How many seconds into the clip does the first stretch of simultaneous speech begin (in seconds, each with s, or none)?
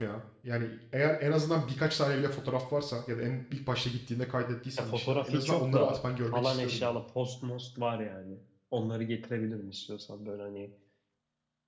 4.8 s